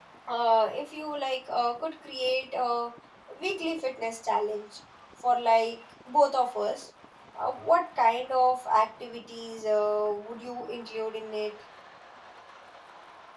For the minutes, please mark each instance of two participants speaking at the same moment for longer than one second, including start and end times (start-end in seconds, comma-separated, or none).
none